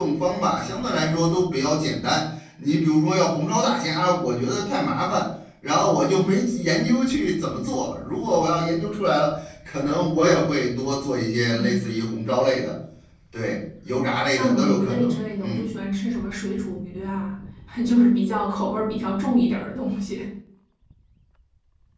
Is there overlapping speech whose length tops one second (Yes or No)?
Yes